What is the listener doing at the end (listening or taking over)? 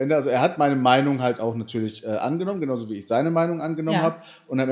listening